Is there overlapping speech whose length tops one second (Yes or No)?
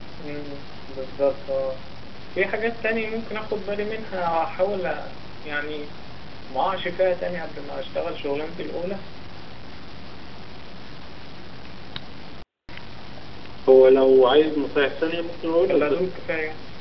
No